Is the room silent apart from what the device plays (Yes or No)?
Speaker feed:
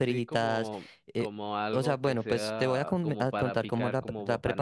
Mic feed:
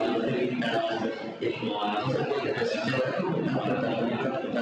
Yes